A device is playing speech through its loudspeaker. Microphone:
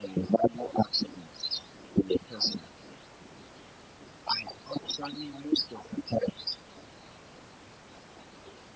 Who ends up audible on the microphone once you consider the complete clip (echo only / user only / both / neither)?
echo only